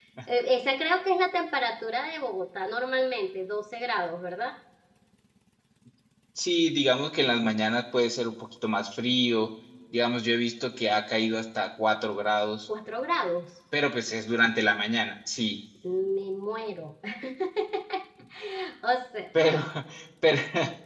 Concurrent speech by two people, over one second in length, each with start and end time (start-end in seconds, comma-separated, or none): none